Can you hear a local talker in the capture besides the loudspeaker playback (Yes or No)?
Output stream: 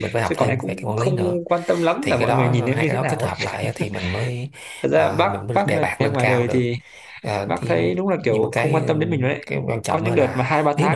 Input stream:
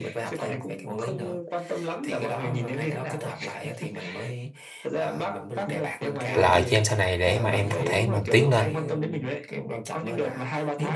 Yes